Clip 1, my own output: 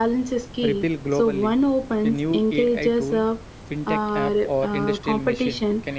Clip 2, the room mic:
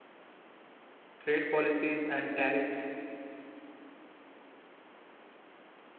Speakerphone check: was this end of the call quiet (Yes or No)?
No